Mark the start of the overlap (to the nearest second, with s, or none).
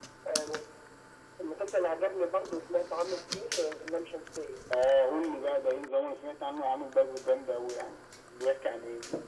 none